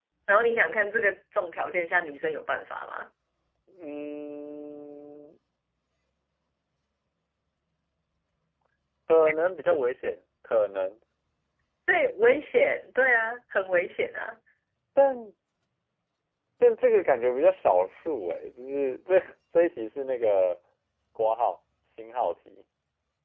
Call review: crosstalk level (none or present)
none